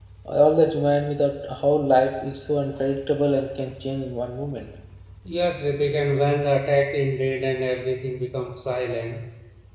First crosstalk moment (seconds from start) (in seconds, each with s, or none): none